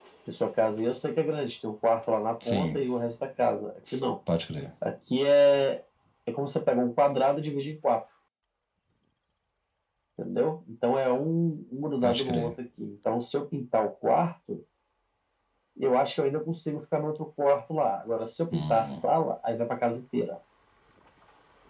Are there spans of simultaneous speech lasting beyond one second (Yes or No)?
No